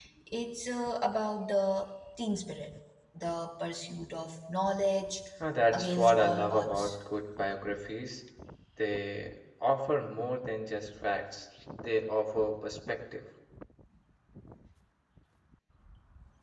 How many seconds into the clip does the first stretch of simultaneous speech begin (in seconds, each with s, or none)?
5.7 s